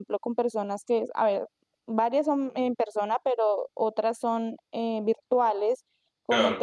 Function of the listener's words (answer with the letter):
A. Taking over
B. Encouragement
B